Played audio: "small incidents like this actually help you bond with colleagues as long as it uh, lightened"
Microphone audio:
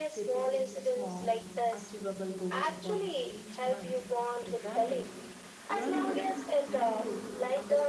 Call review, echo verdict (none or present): present